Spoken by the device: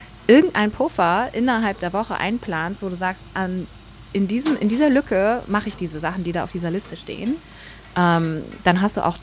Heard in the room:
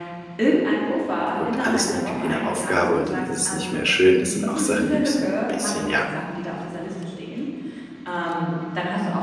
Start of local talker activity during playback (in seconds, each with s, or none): 1.4 s